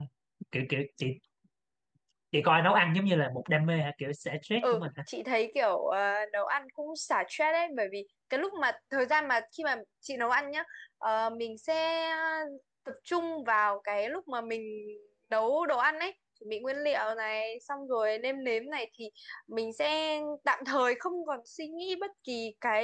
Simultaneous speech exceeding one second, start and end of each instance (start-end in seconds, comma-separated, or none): none